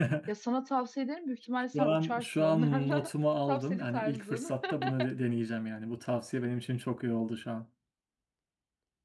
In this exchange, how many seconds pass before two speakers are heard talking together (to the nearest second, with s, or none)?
2 s